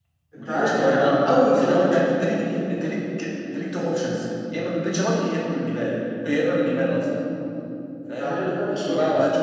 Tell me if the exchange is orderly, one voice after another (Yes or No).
No